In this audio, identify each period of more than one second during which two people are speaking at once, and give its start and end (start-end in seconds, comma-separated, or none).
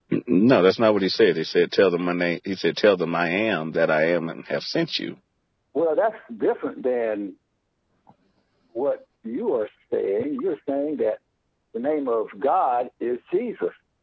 none